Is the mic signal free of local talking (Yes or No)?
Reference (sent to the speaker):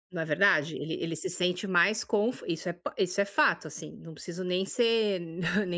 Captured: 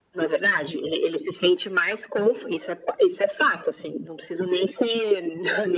Yes